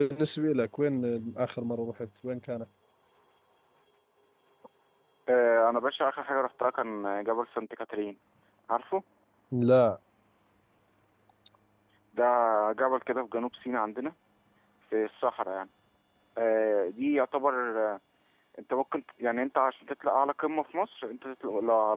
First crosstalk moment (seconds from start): none

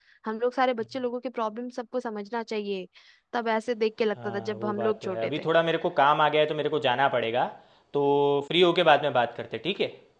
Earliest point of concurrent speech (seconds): 4.2 s

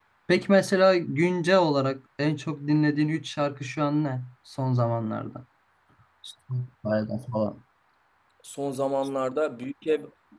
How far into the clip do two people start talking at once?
none

